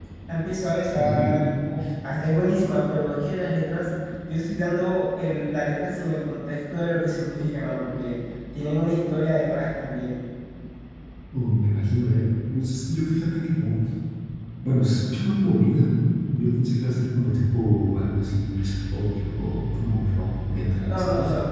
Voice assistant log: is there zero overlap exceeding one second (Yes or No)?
Yes